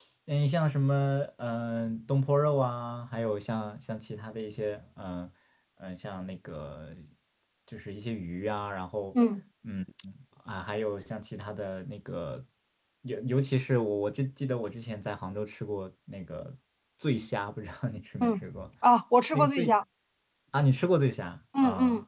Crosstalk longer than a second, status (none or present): none